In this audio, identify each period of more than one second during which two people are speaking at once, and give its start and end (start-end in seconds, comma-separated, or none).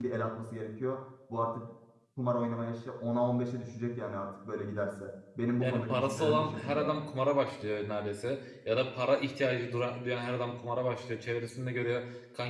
5.6-7.0